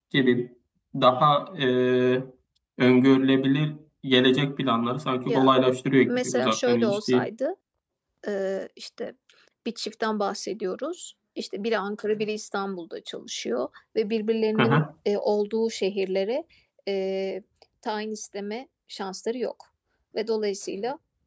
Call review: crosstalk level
present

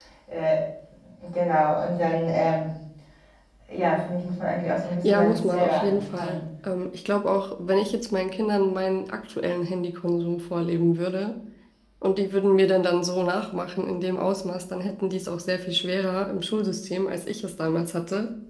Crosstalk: present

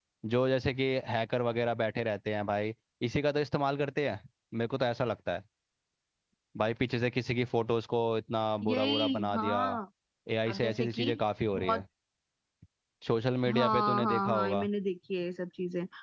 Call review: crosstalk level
present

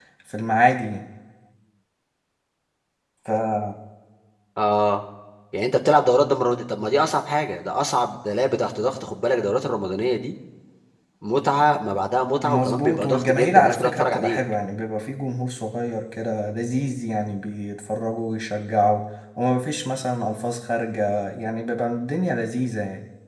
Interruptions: present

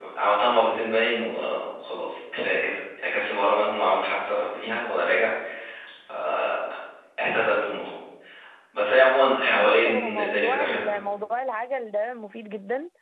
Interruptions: present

